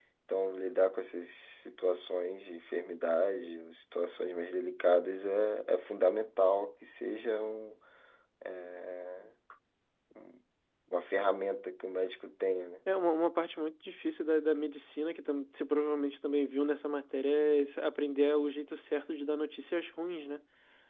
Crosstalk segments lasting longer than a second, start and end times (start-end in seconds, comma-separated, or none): none